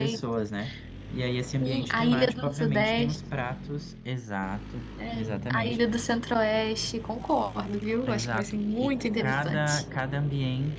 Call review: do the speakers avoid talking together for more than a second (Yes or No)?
No